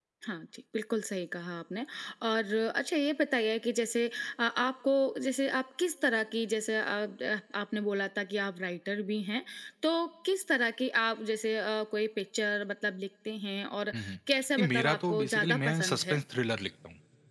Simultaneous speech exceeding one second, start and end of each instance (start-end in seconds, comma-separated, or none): 14.6-16.2